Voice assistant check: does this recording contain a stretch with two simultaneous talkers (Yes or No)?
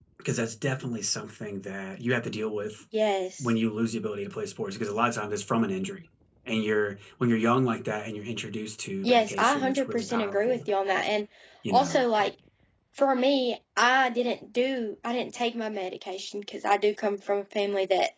Yes